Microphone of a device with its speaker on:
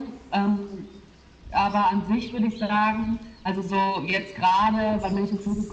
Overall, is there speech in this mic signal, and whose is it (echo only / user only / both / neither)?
echo only